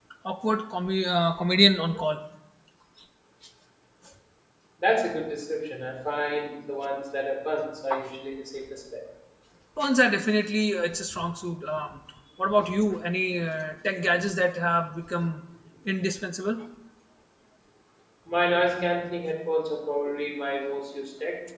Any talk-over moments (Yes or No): No